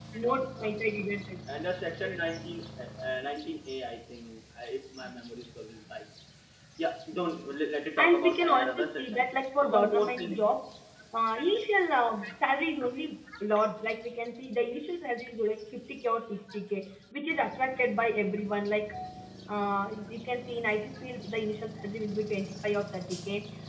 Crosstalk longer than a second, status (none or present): present